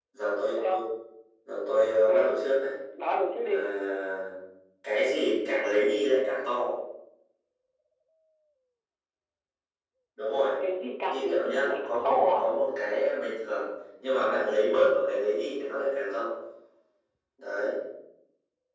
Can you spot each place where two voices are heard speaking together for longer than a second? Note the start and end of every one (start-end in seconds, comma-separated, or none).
11.1-12.4